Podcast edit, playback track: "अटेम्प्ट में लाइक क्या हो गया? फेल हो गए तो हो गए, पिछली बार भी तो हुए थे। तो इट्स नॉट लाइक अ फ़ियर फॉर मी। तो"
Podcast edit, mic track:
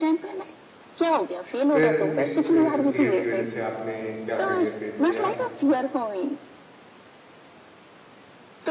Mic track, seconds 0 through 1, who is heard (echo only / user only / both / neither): echo only